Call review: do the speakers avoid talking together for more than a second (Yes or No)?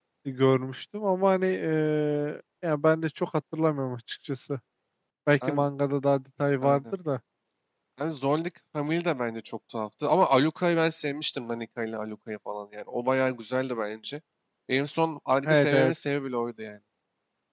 Yes